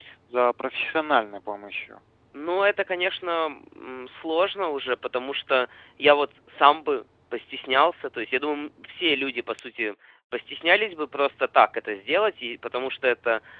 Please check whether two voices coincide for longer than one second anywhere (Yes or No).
No